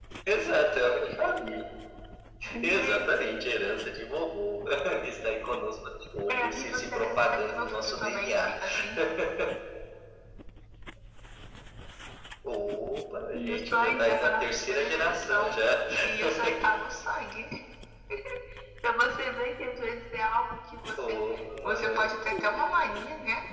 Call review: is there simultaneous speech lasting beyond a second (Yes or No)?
Yes